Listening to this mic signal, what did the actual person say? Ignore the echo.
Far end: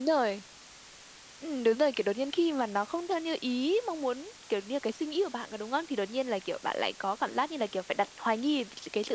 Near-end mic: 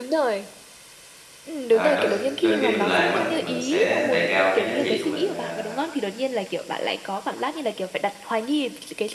ờ, đôi kh đôi khi mình làm á thì mình sẽ đề cao cái giá trị của mình, à,

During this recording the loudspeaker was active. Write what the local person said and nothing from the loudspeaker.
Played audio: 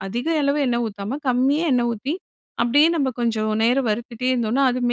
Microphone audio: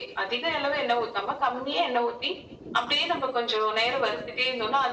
none

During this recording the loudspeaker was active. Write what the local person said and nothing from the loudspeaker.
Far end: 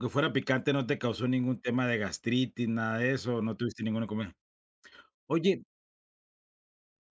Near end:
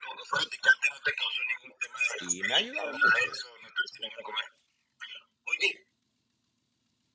Y me ha ayudado mucho.

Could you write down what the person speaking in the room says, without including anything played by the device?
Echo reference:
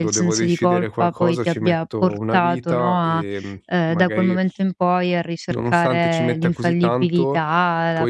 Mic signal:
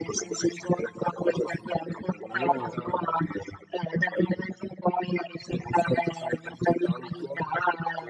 Io, ehm,

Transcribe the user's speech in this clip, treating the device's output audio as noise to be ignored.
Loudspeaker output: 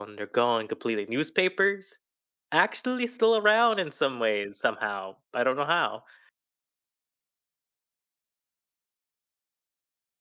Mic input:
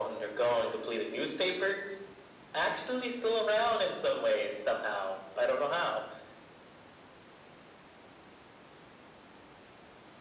none

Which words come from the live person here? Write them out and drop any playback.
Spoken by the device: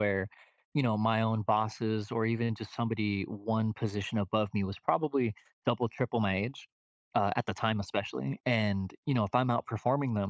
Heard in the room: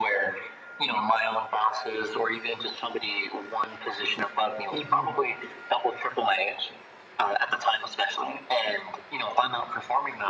Mhm.

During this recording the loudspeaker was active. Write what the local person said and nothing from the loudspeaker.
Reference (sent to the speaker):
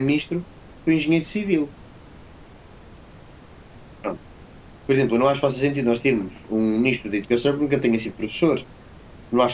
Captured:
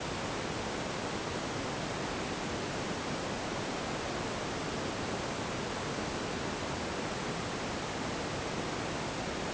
none

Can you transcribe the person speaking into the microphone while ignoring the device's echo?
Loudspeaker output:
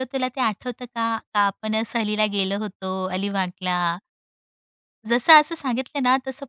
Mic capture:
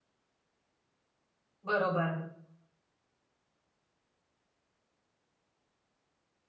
बरोबर.

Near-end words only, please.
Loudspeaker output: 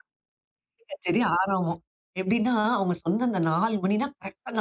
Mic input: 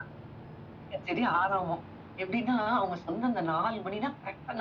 none

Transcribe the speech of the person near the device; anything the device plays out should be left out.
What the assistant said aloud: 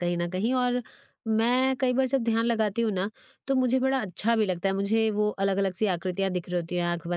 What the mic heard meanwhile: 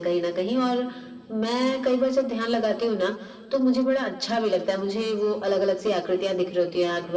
none

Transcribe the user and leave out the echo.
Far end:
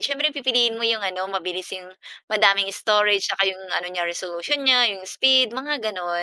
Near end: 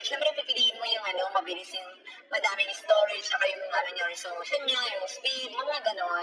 none

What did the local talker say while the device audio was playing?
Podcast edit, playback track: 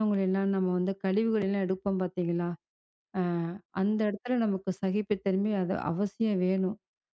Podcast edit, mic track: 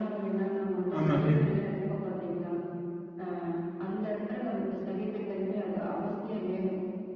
ஆமாங்க.

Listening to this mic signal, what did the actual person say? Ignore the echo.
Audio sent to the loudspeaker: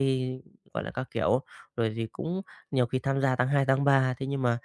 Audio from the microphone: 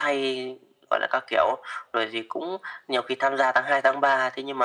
none

